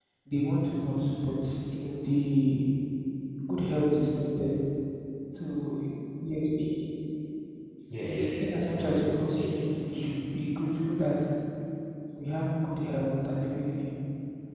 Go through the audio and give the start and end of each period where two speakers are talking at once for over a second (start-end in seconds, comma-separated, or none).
8.1-9.6